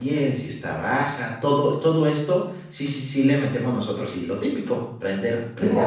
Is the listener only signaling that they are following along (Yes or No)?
No